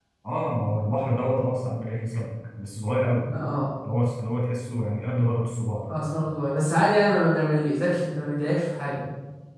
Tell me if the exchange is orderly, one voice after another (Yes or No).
Yes